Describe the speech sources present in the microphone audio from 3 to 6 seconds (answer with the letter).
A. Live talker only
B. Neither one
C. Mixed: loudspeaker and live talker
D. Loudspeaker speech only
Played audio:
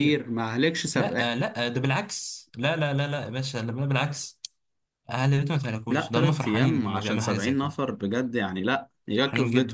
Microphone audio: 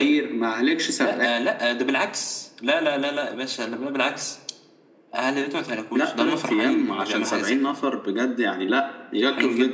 D